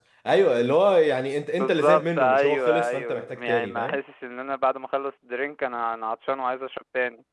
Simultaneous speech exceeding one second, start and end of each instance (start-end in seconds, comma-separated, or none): 1.6-4.0